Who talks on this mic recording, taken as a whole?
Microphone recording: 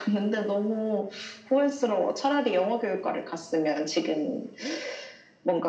echo only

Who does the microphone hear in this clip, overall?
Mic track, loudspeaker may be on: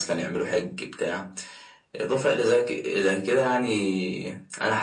echo only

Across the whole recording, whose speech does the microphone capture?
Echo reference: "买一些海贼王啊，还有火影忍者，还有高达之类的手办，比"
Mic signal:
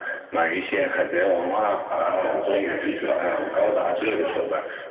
both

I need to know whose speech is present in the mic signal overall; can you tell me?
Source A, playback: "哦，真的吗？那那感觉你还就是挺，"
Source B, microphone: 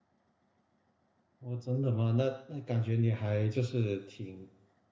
echo only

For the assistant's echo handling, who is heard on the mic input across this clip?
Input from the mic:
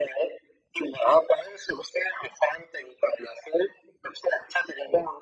echo only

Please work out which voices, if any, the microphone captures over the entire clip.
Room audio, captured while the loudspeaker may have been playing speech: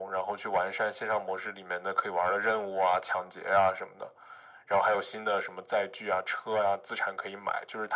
echo only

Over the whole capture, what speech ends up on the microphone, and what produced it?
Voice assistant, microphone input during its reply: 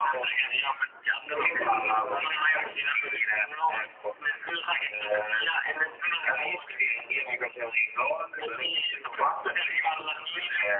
both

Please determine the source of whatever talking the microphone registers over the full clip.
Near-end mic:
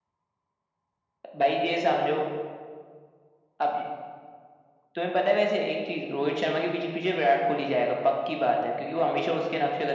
echo only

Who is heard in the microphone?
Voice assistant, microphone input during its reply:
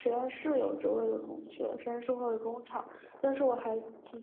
user only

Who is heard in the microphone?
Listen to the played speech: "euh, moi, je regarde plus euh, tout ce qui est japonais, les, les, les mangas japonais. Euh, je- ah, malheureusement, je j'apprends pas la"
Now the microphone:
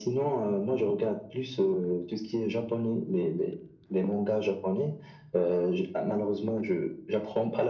echo only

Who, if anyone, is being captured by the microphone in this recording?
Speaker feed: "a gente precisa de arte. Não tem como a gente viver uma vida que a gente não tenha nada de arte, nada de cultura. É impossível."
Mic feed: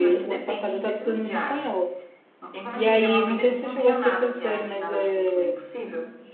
both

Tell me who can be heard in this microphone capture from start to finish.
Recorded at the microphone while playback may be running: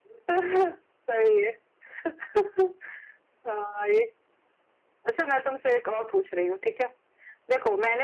echo only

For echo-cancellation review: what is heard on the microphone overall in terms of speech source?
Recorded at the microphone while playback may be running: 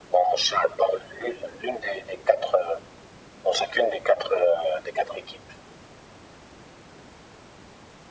echo only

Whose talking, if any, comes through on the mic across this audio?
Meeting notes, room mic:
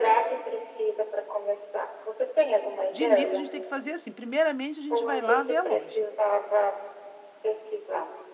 both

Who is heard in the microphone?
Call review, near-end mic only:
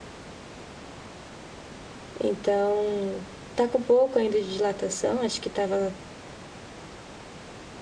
user only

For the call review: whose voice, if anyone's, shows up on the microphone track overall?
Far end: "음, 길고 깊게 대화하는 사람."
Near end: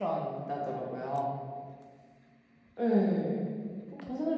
user only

